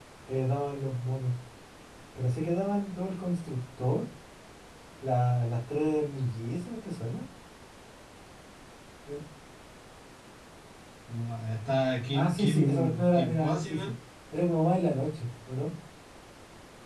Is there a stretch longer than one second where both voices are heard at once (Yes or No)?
Yes